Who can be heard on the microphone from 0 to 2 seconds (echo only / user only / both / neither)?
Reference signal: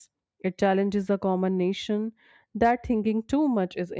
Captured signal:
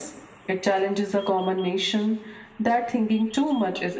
echo only